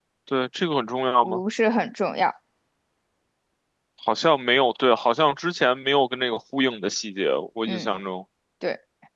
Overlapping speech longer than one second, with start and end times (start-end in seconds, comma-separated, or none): none